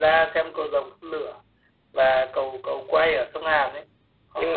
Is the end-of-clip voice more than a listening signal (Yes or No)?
No